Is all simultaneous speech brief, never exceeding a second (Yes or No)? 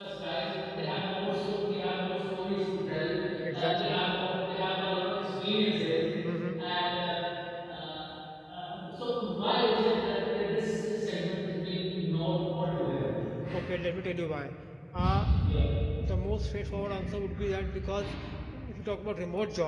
Yes